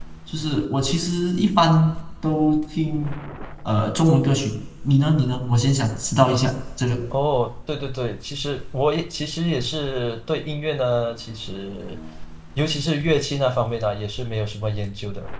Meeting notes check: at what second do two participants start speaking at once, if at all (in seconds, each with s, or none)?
none